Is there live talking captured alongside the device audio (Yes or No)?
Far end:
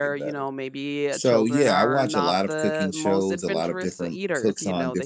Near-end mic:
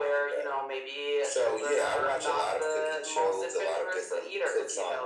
No